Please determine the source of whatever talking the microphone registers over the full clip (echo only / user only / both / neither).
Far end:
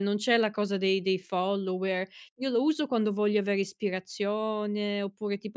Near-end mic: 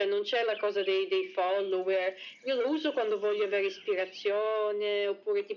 echo only